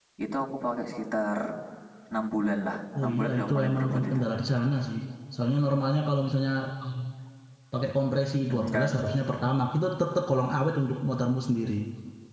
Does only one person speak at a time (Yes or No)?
No